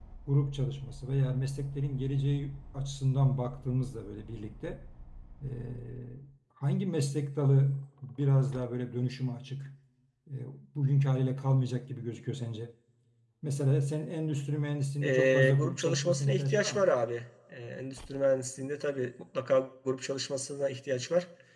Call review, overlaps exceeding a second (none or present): present